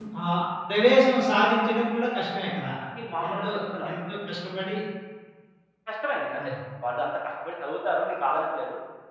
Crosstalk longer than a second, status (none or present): none